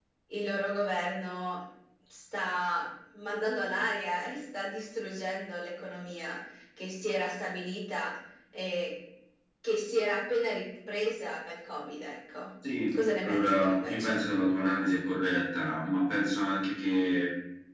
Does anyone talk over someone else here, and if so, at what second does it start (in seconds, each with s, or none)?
12.9 s